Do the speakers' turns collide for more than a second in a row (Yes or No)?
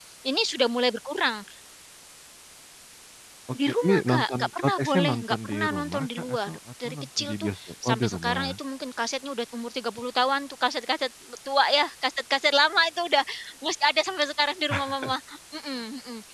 Yes